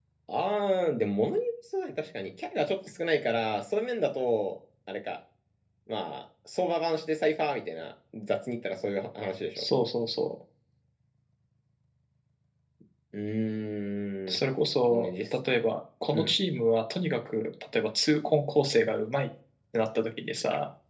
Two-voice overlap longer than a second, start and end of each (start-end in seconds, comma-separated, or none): none